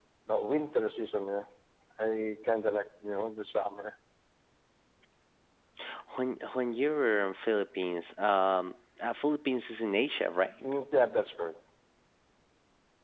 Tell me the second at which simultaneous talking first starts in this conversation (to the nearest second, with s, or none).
none